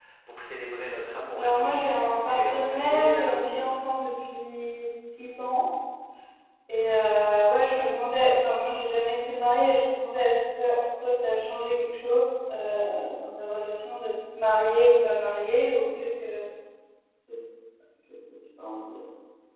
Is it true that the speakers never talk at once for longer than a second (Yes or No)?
No